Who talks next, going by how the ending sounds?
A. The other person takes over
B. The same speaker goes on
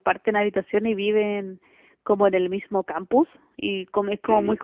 B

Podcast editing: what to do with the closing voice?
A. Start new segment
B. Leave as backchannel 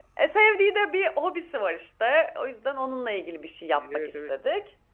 A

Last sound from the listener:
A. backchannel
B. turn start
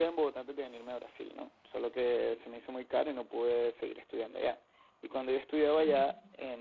A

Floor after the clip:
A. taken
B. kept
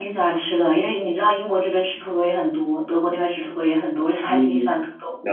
A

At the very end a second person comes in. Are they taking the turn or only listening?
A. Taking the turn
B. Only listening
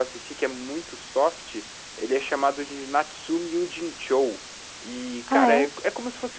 B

